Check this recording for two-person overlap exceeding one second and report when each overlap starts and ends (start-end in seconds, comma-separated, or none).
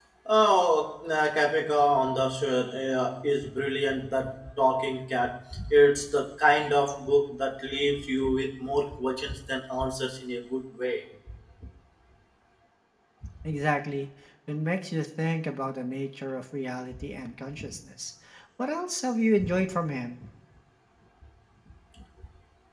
none